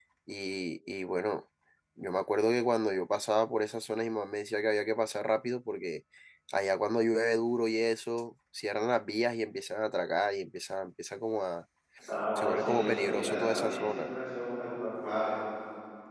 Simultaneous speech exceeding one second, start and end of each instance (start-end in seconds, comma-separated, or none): 12.4-14.1